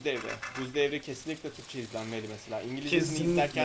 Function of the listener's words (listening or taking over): taking over